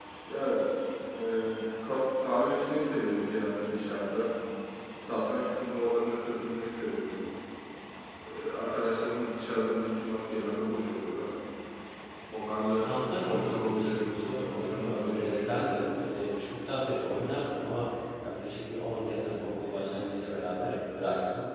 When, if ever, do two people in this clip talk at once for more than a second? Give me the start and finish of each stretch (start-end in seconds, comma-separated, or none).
12.7-15.6